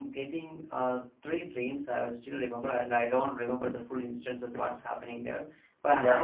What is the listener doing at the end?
listening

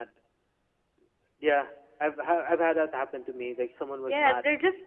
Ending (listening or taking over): taking over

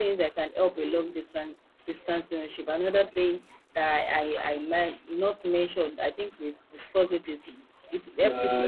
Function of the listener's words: taking over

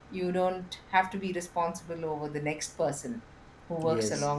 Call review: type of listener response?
listening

